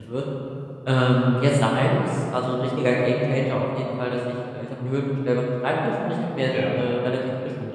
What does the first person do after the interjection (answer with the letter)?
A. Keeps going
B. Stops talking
A